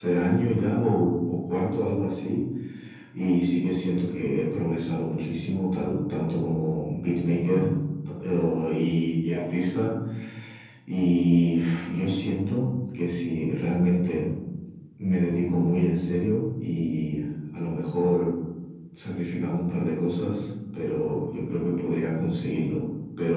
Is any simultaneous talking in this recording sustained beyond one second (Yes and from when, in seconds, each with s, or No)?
No